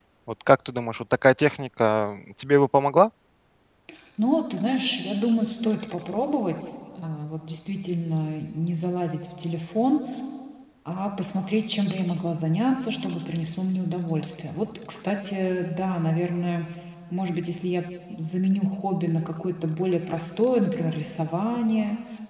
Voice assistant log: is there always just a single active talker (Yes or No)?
Yes